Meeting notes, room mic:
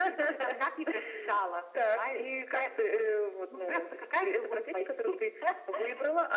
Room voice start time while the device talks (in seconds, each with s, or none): none